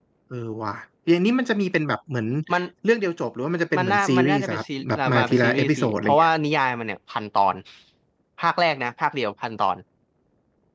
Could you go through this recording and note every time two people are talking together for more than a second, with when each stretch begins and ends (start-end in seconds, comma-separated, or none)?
3.8-6.3